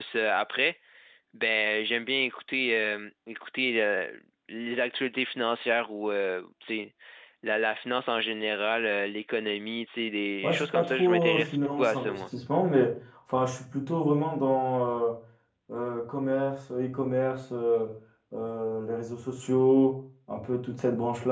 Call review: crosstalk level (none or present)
present